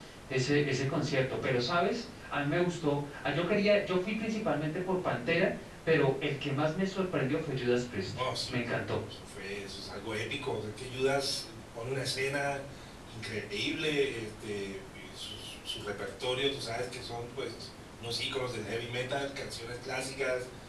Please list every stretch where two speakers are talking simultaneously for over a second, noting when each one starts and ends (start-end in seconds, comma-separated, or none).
none